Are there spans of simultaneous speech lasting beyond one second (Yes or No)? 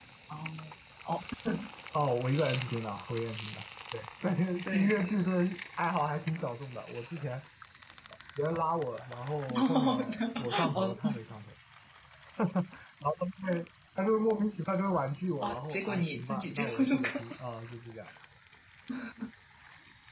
Yes